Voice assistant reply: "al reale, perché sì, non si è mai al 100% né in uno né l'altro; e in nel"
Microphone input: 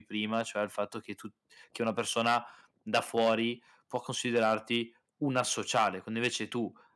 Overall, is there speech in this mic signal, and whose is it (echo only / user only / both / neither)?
user only